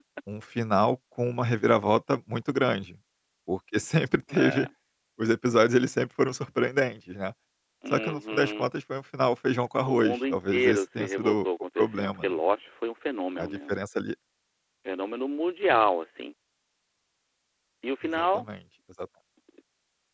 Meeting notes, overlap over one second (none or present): present